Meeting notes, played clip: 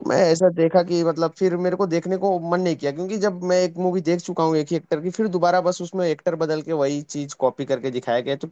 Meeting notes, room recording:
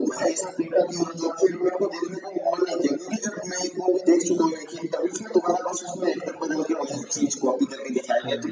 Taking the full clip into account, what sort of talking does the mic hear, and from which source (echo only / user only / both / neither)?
both